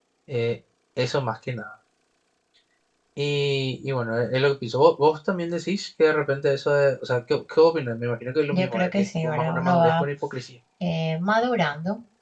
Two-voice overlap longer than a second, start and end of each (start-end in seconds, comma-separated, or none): 8.5-10.0